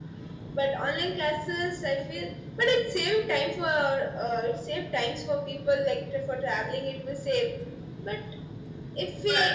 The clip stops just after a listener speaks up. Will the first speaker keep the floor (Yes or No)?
Yes